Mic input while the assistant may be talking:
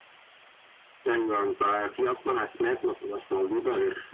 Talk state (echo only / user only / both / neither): echo only